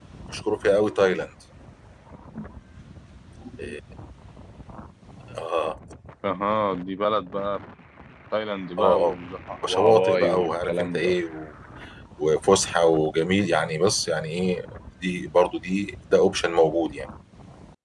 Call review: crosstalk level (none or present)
present